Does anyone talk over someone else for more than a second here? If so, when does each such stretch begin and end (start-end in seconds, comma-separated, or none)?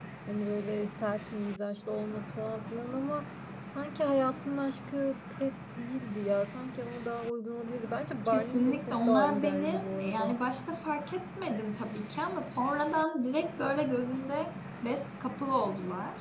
8.2-10.4